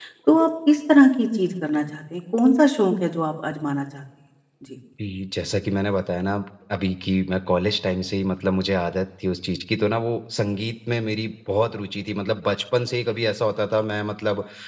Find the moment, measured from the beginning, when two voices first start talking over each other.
none

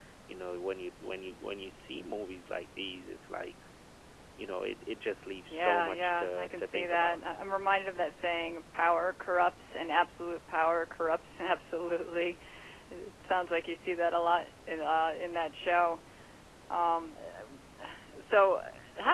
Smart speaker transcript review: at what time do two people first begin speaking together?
6 s

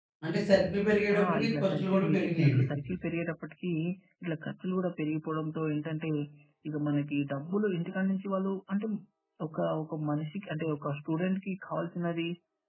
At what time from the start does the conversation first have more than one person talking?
1 s

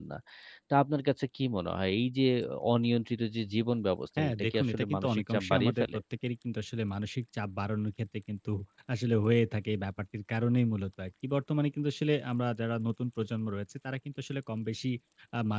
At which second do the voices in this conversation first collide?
4 s

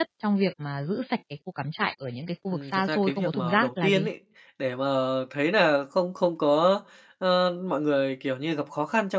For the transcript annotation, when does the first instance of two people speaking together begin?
3 s

